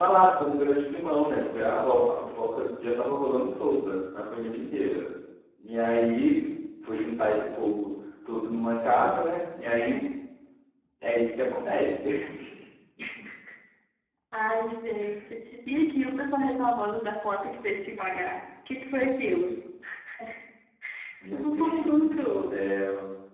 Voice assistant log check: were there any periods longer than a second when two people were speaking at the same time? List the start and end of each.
21.3-22.6

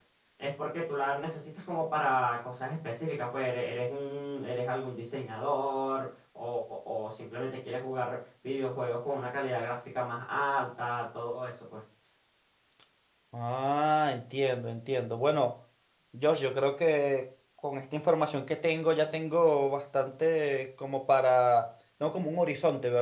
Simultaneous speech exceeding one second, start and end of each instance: none

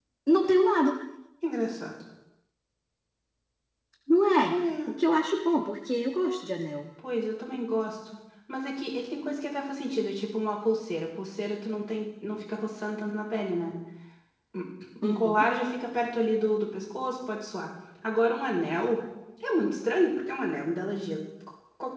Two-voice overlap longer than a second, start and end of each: none

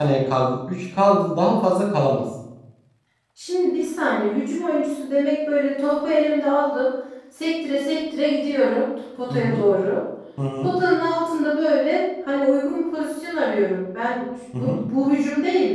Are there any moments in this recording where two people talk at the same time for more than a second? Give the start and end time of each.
none

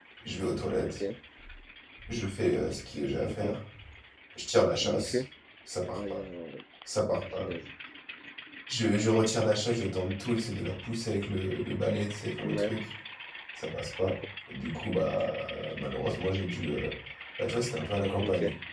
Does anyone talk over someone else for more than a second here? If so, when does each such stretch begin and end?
none

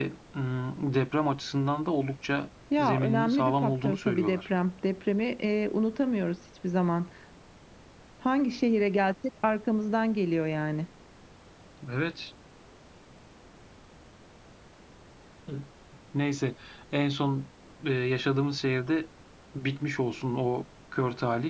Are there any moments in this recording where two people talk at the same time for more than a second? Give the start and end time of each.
2.8-4.4

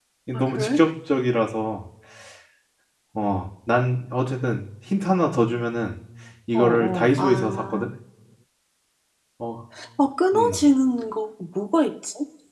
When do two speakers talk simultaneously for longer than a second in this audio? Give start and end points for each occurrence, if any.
6.5-7.8

